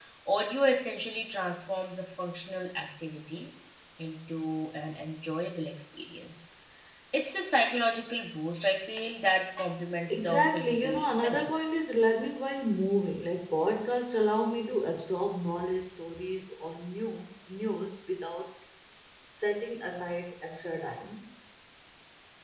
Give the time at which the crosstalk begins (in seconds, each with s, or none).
10.1 s